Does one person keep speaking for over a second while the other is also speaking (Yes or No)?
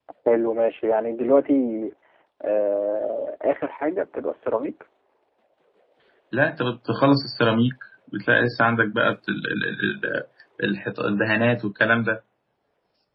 No